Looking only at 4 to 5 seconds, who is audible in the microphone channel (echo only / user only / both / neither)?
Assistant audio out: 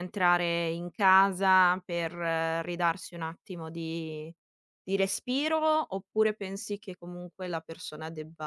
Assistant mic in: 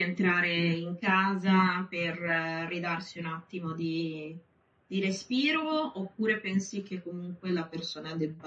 echo only